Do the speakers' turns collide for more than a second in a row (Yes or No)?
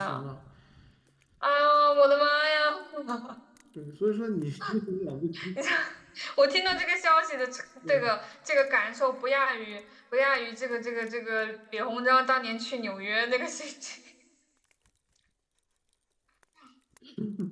No